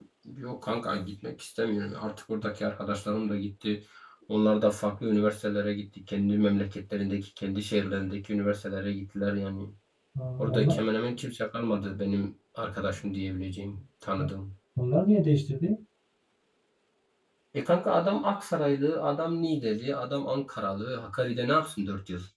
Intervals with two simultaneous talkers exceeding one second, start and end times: none

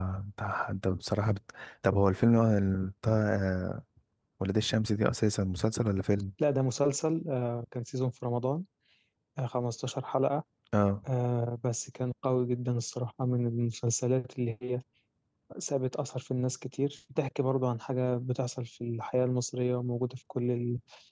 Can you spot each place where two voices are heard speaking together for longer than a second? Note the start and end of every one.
none

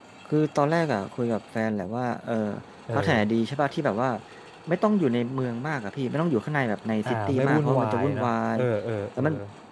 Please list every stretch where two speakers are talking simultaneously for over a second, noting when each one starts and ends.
7.0-8.6

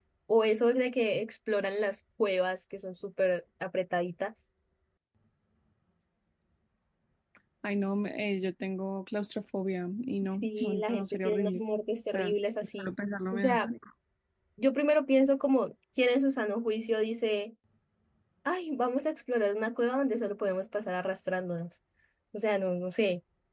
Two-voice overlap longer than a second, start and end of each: 10.4-11.6

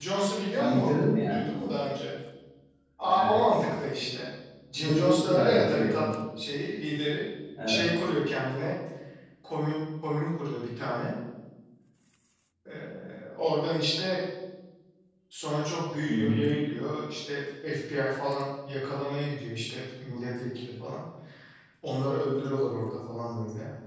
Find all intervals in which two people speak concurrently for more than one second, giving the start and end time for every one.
4.8-6.0

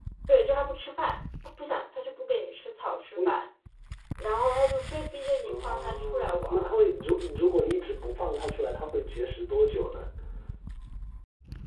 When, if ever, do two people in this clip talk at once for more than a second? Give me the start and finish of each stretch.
5.4-6.7

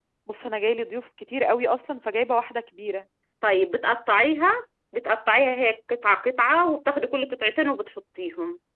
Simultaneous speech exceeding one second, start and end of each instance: none

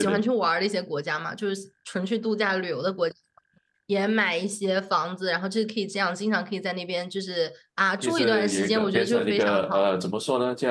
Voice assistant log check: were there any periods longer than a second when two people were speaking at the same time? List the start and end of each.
8.0-9.9

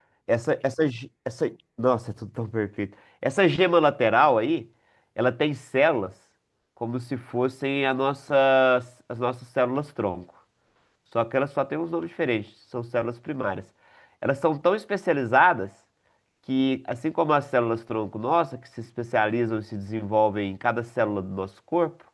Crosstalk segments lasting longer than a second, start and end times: none

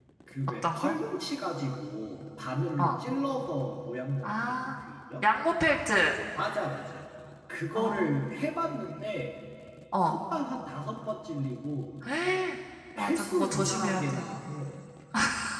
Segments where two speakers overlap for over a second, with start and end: 13.0-14.2

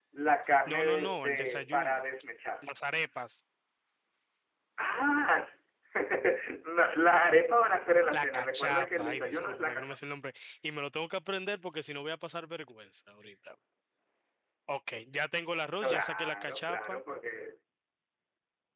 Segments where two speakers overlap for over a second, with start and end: 0.7-2.0, 8.1-9.9, 15.8-17.0

